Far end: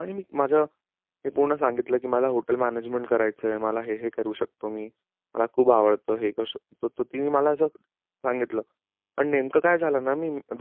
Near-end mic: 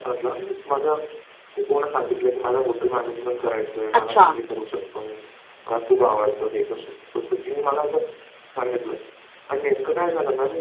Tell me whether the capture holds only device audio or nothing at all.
No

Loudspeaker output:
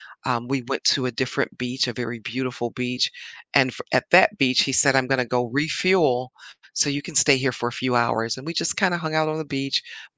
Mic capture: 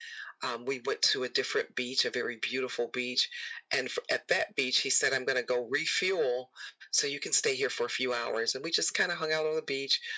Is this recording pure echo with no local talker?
Yes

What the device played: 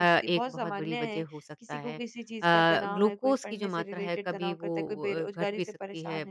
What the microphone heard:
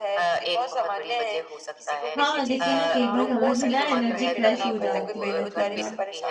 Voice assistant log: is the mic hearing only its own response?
No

